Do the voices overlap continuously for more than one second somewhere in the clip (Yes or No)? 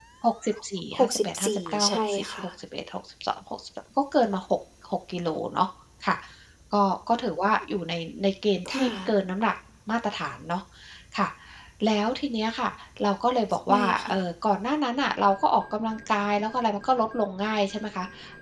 Yes